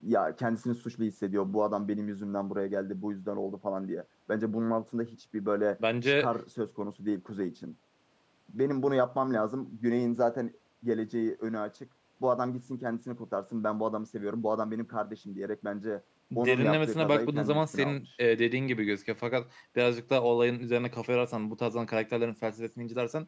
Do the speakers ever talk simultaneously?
Yes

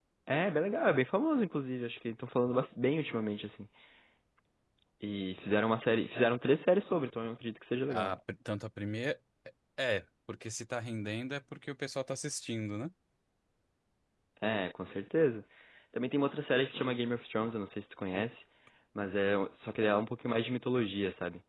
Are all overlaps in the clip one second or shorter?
Yes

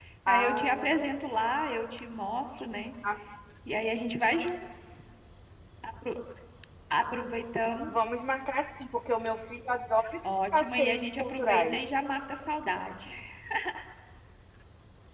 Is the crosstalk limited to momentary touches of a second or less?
No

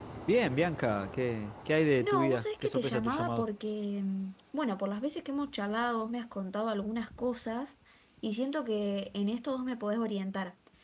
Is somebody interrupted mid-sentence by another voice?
Yes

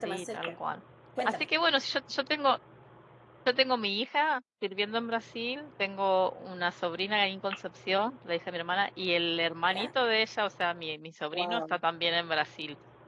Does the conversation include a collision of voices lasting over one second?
No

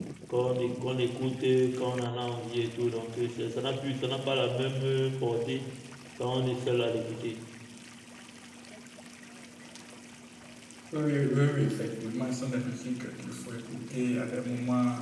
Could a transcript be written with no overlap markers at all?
Yes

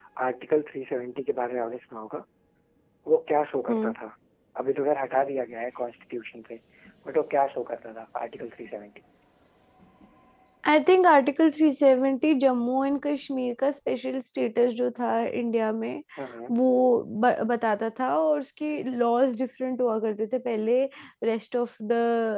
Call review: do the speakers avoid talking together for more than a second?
Yes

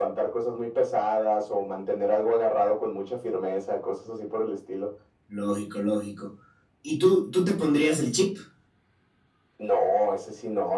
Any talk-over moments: No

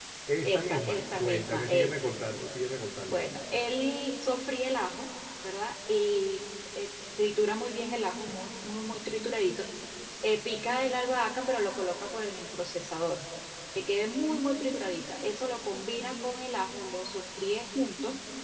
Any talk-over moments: Yes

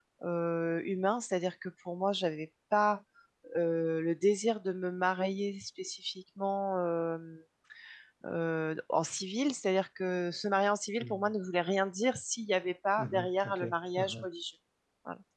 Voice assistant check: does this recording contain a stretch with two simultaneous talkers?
Yes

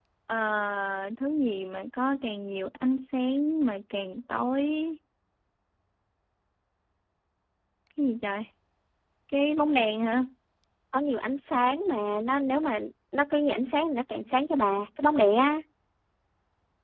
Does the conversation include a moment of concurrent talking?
No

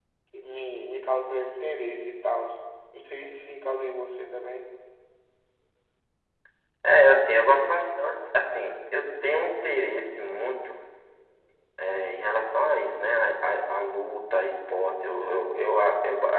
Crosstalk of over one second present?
No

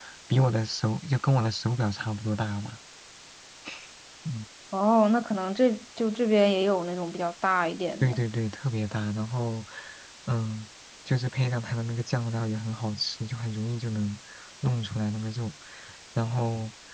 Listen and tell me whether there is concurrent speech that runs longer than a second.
No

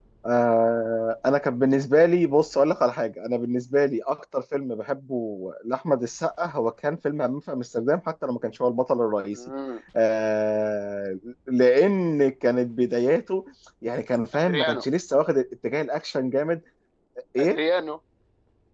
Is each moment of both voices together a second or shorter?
Yes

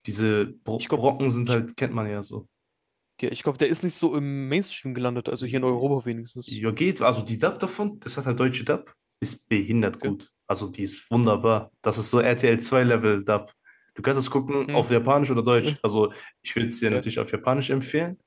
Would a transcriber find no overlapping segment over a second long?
Yes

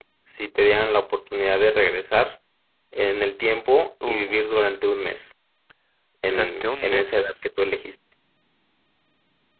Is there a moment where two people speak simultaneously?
Yes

